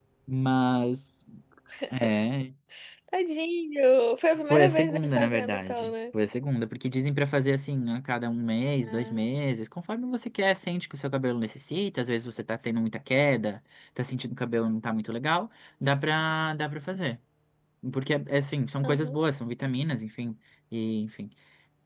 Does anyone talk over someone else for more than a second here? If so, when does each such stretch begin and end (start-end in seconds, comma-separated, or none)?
4.5-5.9